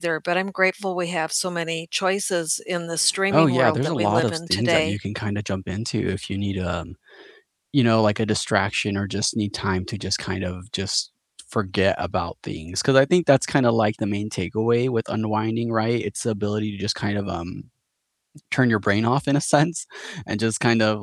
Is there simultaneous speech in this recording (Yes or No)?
Yes